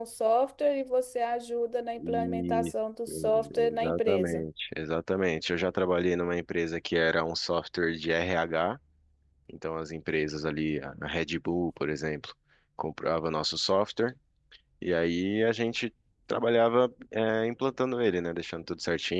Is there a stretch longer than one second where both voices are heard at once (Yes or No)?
Yes